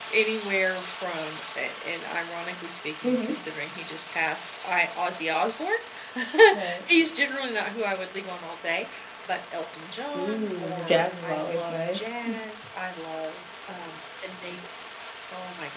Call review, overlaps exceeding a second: present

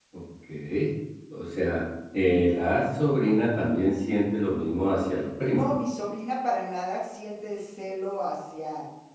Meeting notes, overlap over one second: none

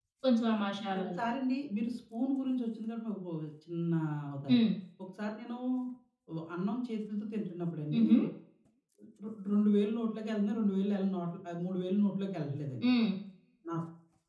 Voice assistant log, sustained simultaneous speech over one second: none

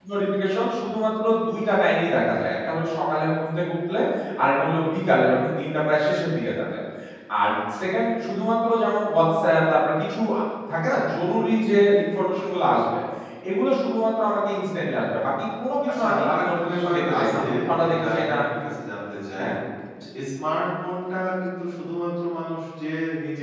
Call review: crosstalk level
present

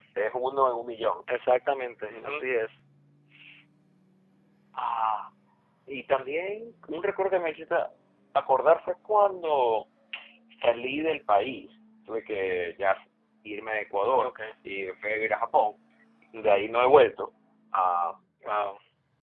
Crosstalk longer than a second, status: none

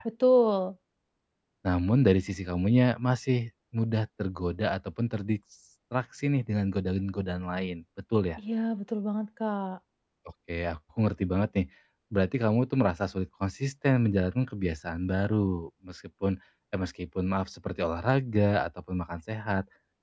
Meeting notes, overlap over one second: none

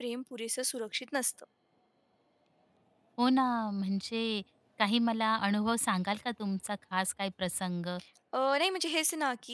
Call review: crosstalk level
none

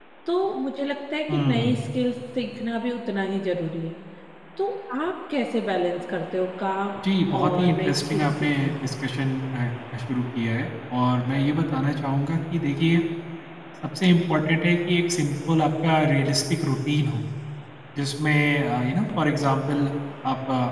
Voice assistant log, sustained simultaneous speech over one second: present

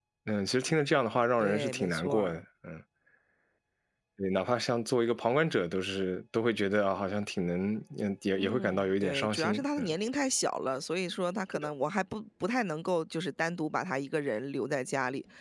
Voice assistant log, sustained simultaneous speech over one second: present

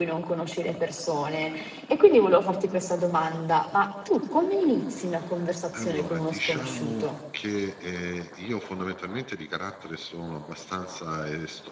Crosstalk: present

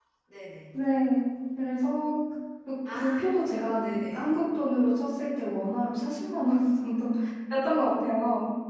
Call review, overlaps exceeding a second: present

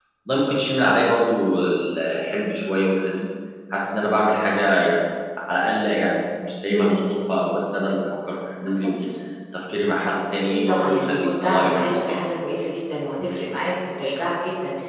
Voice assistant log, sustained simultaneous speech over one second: present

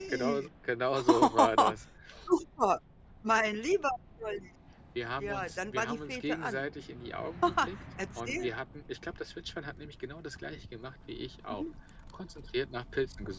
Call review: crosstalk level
present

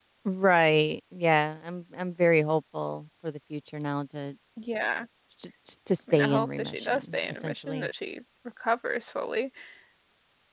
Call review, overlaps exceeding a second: present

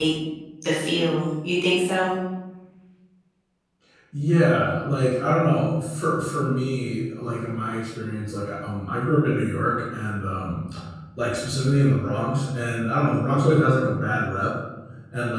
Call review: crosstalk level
none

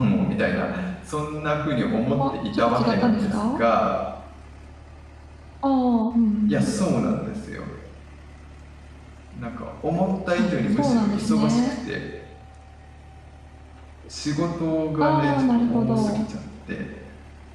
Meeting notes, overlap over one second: present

